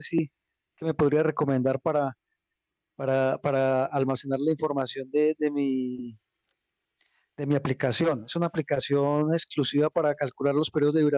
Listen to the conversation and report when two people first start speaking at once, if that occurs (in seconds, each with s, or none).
none